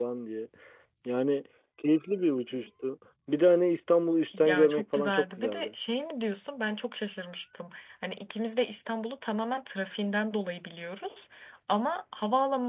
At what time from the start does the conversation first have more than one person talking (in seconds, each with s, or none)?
4.3 s